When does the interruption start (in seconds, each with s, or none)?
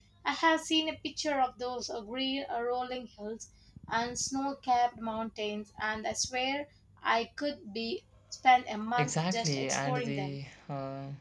9.0 s